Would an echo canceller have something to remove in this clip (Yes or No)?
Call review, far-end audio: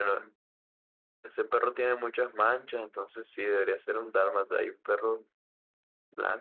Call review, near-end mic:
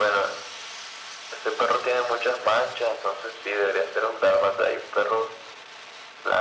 Yes